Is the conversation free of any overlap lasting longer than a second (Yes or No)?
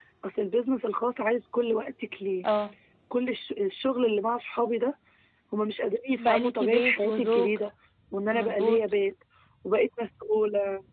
No